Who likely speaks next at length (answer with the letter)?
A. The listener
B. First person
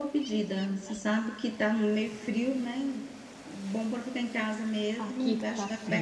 A